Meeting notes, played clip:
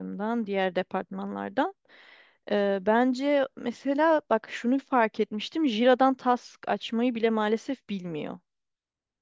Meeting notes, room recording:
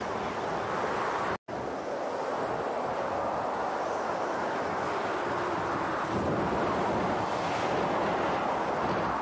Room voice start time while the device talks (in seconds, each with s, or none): none